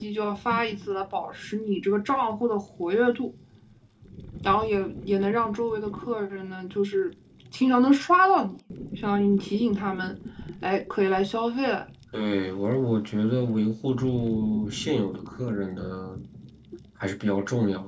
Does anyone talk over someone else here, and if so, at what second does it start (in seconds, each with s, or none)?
none